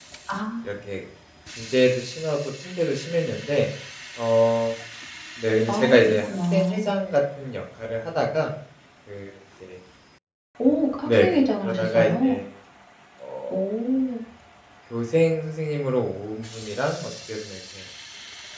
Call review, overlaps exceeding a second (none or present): present